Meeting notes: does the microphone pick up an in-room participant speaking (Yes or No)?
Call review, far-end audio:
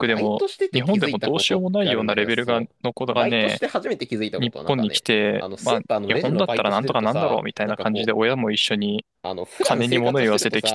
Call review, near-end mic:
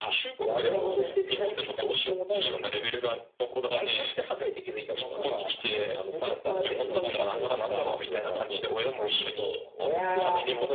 Yes